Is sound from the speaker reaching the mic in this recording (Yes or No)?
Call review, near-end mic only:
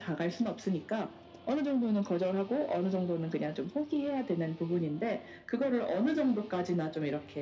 Yes